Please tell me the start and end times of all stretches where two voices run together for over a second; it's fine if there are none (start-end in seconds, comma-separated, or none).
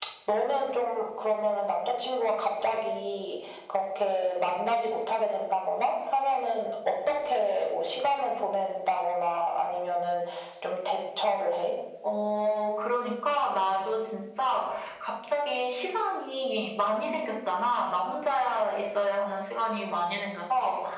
none